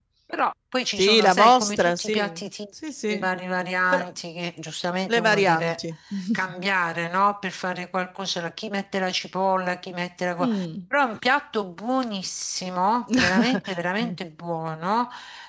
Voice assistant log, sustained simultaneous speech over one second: present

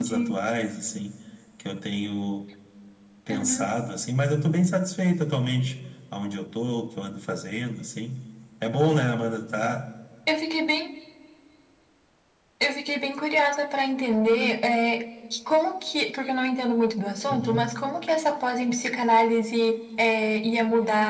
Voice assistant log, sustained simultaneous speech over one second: none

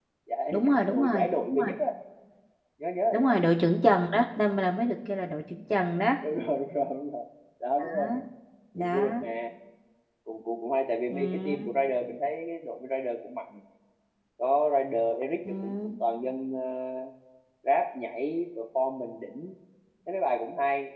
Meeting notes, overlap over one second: present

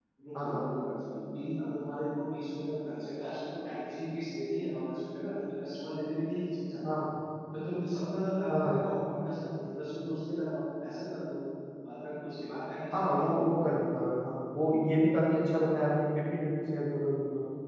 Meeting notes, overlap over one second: none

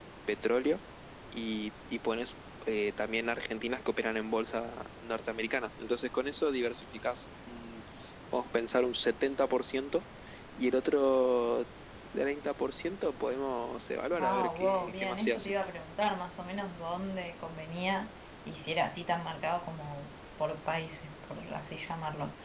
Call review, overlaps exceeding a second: present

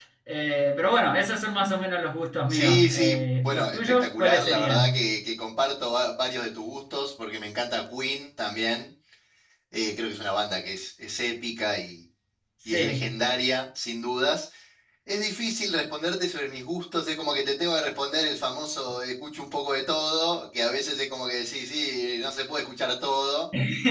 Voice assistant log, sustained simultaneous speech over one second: present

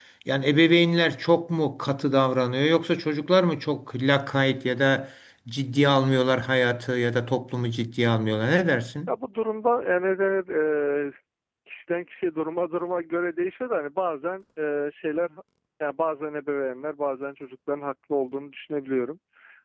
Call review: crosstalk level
none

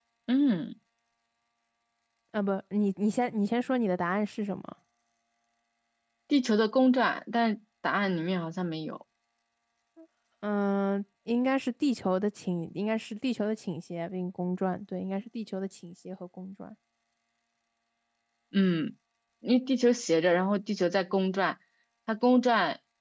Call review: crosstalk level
none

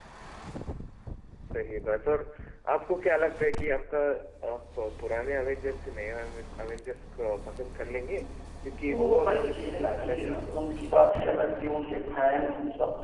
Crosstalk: present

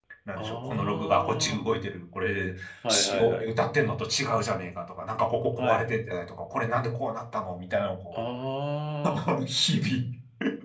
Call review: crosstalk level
present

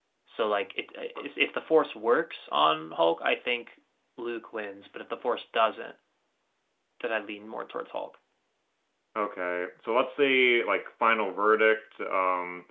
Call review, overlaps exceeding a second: none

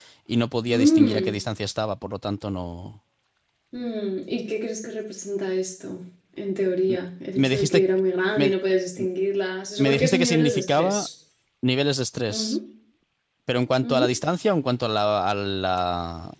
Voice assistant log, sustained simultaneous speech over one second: present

